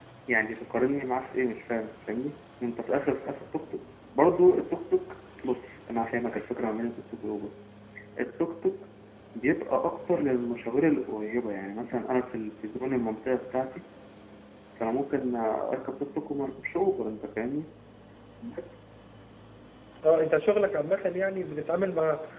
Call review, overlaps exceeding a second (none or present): none